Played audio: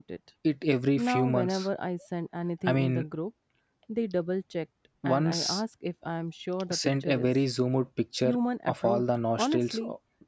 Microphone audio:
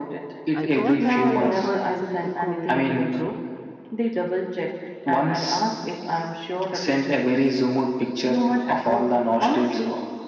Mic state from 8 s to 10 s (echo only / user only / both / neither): echo only